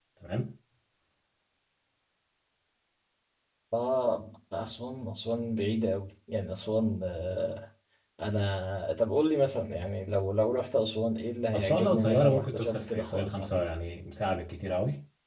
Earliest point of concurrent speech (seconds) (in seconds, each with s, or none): 11.5 s